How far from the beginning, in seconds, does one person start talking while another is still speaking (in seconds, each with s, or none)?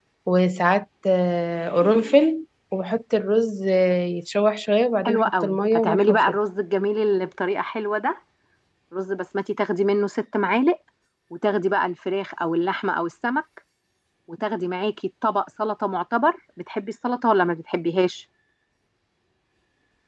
5.0 s